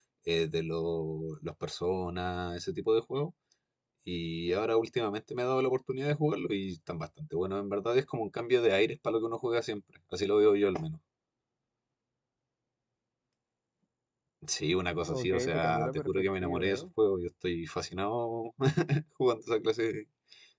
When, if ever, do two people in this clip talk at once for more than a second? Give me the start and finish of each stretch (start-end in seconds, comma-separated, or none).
15.1-16.9